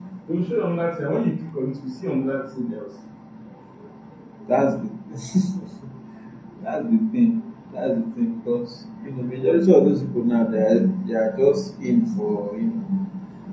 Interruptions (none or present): none